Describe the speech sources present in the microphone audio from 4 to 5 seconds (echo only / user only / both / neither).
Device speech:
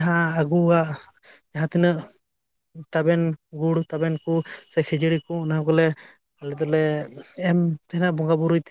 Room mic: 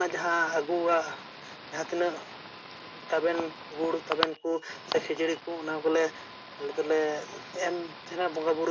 echo only